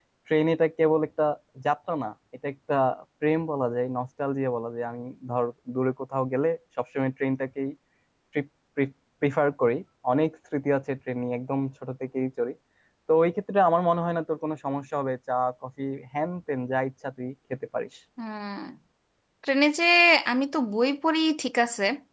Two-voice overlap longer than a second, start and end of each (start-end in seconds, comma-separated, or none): none